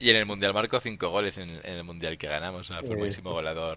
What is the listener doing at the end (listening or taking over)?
listening